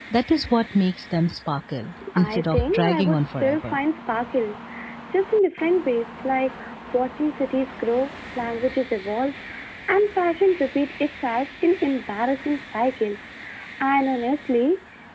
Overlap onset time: 2.0 s

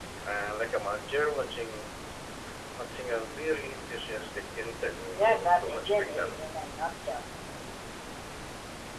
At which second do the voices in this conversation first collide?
5.2 s

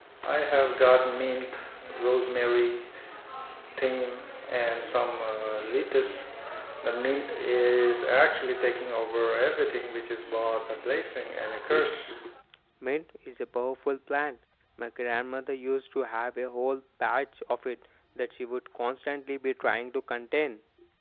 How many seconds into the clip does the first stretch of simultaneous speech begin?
none

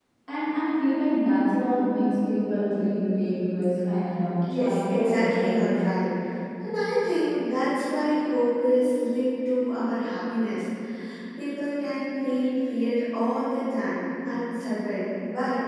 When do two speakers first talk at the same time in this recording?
4.4 s

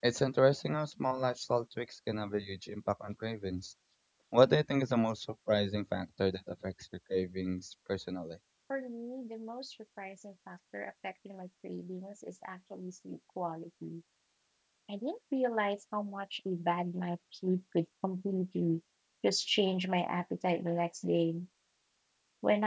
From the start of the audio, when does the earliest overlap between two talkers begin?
none

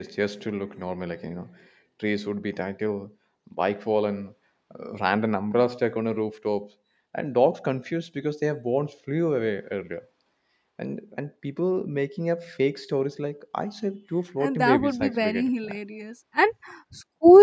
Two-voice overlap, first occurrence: 14.4 s

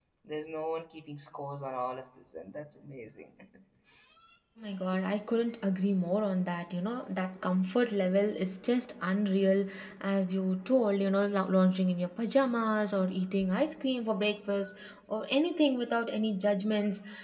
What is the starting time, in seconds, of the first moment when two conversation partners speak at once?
none

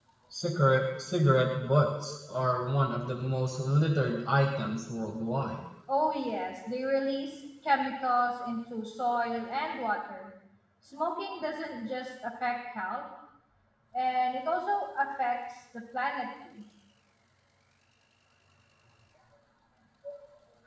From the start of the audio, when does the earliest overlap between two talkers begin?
none

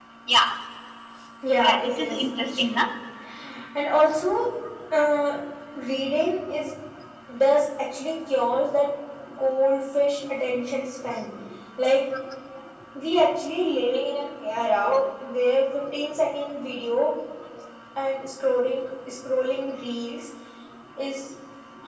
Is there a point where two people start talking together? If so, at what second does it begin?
1.6 s

